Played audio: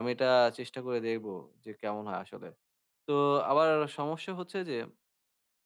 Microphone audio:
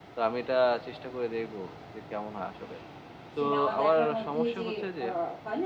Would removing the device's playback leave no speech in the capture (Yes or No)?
No